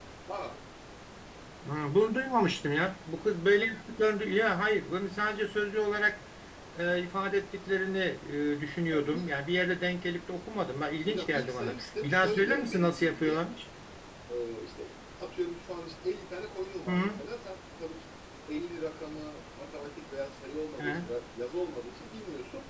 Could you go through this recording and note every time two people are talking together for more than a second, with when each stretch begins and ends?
11.0-13.4

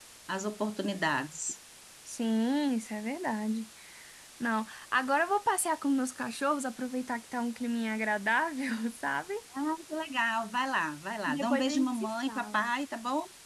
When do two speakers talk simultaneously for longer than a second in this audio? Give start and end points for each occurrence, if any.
11.3-12.7

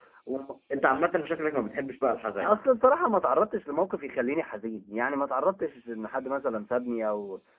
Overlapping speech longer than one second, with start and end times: none

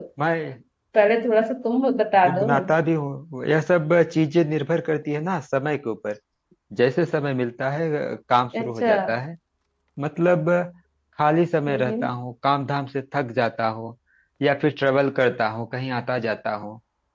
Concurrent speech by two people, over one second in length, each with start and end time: none

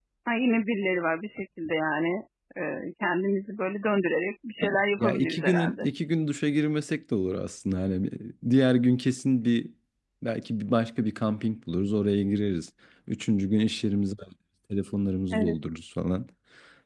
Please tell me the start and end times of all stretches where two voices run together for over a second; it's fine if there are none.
4.6-5.9

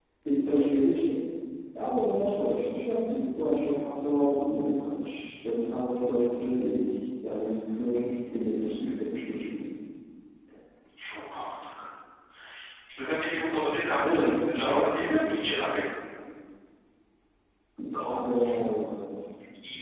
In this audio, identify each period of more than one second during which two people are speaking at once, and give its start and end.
none

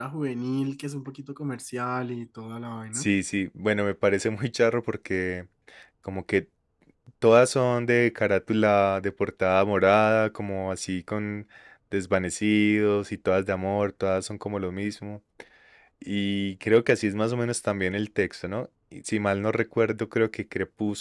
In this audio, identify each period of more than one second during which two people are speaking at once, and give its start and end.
none

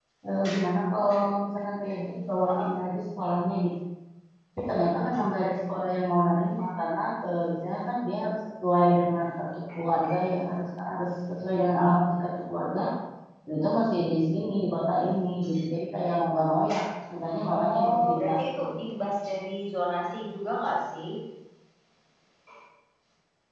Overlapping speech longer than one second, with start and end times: 17.5-18.8

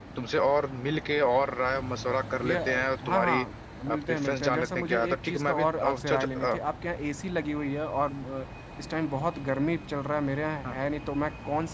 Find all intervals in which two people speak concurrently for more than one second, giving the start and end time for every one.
3.9-6.6

